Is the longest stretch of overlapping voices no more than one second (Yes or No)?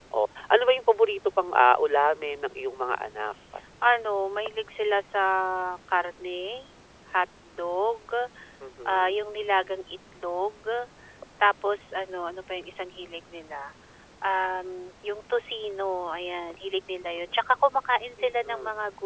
Yes